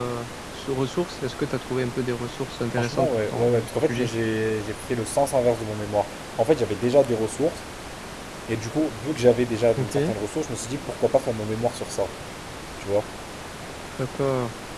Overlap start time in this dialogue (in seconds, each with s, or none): 2.7 s